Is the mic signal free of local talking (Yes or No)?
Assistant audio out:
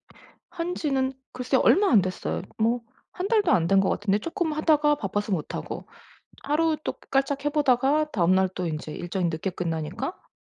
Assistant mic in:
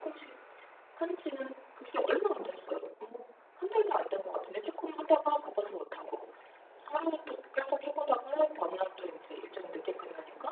Yes